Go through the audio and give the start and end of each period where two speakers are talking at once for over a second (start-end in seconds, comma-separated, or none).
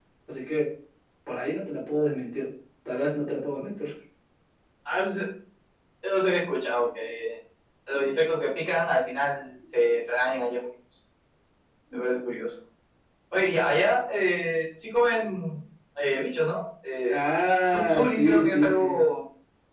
17.1-19.0